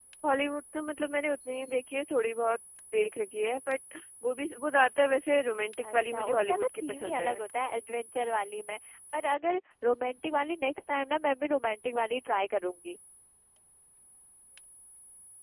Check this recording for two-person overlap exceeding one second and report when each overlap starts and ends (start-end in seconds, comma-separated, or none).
5.8-7.3